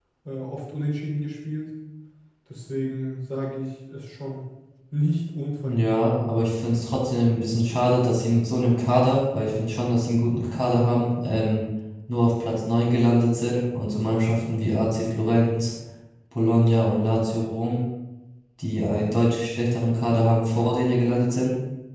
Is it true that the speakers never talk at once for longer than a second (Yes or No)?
Yes